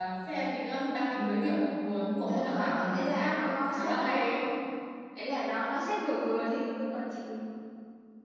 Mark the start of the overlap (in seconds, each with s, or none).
2.2 s